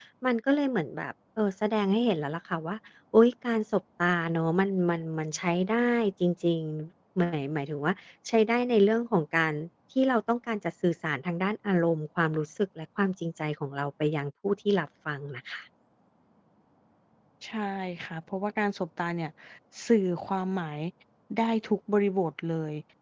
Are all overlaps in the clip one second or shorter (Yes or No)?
Yes